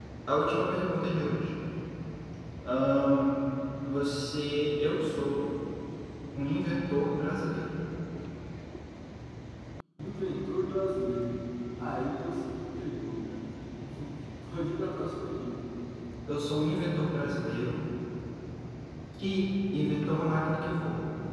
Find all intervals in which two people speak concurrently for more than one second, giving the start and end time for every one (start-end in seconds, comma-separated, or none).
none